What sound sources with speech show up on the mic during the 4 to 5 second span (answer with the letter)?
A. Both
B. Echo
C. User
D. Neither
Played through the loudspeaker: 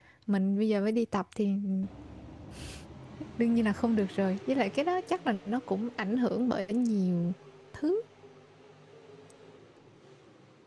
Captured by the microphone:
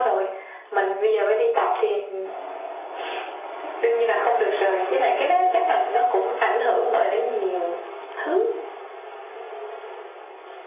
B